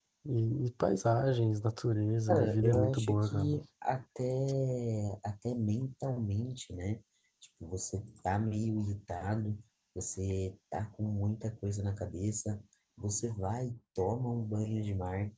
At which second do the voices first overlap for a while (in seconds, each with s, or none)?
2.3 s